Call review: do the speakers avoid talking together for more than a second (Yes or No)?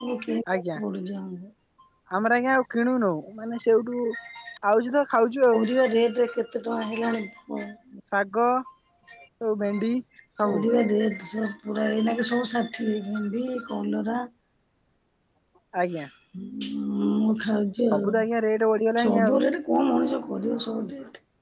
Yes